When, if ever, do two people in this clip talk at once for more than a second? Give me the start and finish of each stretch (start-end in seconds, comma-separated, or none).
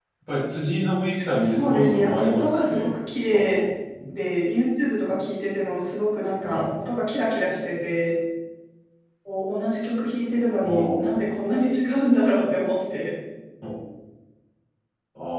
1.4-2.9